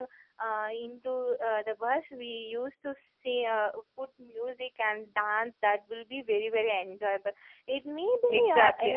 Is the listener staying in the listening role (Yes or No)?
No